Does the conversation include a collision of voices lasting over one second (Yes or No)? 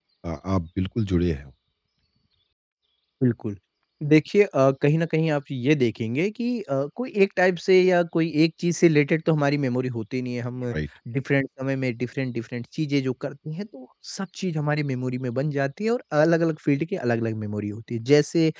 No